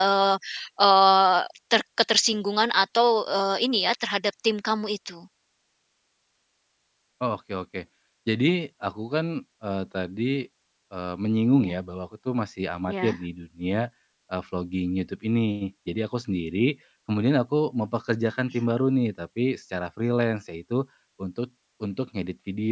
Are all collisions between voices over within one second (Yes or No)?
Yes